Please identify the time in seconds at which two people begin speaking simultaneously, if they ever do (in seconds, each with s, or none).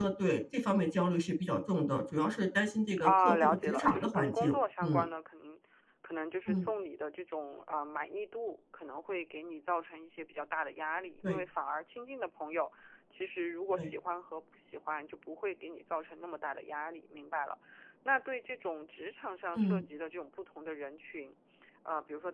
3.0 s